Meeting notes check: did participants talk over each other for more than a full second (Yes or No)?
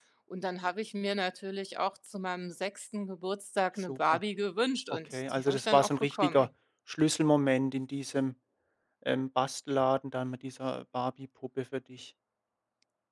Yes